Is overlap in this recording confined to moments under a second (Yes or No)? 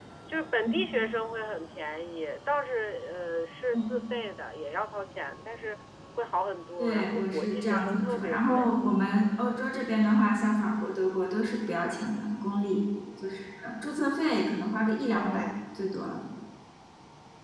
No